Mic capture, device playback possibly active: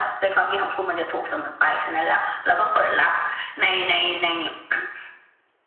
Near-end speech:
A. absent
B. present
A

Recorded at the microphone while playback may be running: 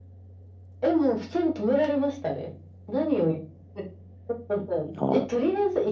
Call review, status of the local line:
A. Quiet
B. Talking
B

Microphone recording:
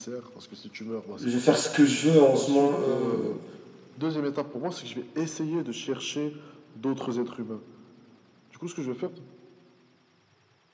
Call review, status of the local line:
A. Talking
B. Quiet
A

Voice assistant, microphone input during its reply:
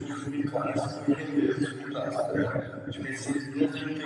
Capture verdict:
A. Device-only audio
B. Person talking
A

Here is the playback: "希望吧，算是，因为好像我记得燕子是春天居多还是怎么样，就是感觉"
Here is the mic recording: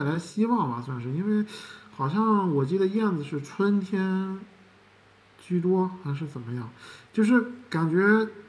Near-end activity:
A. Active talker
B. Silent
B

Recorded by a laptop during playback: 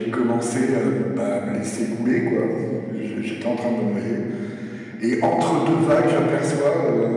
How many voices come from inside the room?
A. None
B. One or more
A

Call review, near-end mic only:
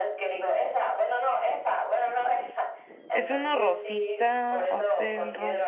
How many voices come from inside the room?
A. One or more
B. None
A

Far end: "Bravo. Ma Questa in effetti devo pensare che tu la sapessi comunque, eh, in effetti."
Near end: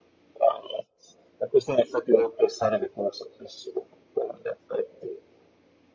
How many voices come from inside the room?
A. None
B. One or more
A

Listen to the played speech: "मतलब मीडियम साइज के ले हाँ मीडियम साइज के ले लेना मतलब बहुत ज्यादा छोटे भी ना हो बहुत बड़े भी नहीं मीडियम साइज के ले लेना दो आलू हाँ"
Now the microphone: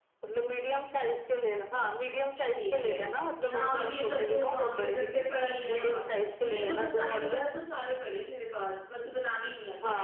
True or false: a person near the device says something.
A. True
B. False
A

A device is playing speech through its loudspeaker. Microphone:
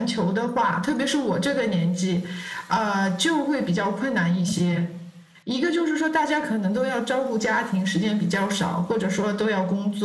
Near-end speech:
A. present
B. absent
B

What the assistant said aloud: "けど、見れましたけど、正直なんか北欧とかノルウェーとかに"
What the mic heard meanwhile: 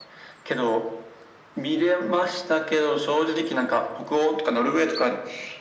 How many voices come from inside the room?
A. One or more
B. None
B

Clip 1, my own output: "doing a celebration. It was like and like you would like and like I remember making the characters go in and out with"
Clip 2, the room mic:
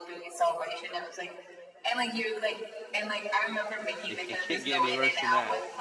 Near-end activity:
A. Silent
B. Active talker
B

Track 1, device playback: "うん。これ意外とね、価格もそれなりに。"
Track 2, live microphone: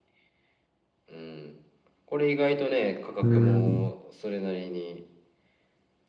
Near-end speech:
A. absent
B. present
B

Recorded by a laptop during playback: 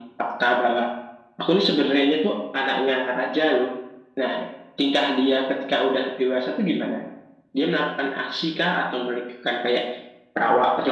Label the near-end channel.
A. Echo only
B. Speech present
A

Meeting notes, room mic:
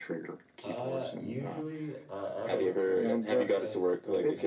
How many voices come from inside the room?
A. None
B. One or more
B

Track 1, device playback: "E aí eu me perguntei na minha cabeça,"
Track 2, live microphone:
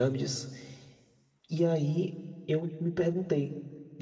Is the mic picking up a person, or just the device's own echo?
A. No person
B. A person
A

